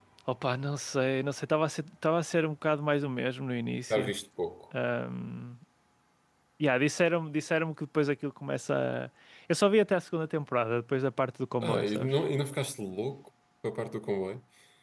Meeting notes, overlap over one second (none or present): none